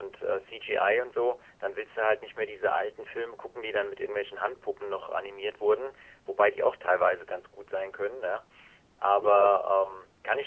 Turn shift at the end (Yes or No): No